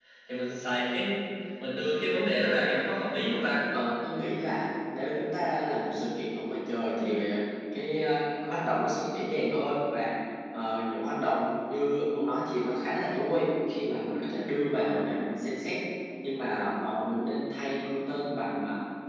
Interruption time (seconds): none

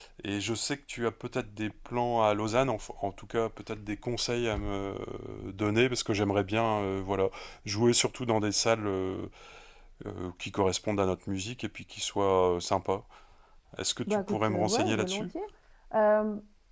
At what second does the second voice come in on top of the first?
14.1 s

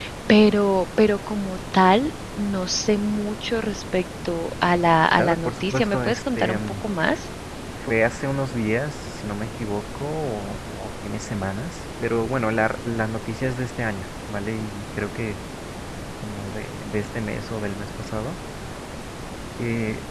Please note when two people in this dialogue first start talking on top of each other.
5.2 s

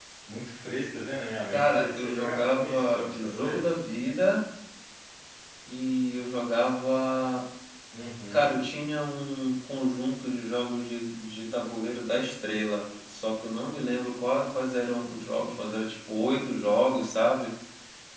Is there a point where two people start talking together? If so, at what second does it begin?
1.5 s

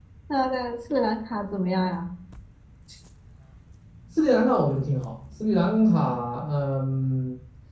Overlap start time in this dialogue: none

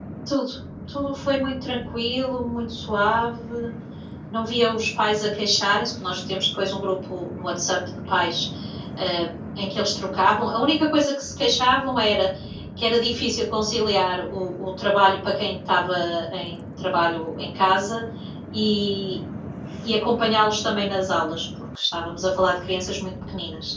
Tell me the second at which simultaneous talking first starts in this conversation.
none

